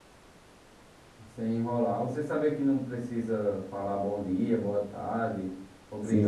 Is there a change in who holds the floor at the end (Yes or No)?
Yes